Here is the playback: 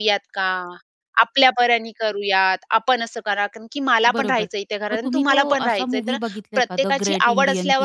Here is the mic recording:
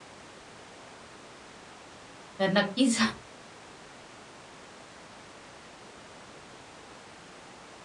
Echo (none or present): none